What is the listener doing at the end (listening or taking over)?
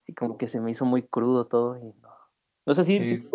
listening